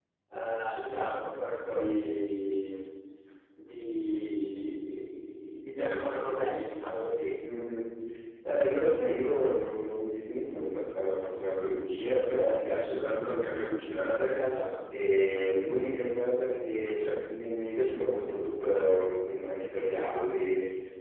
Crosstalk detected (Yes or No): No